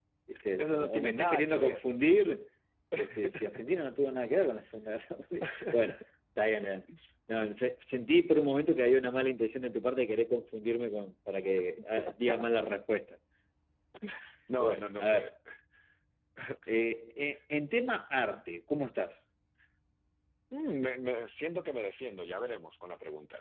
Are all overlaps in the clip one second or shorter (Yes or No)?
No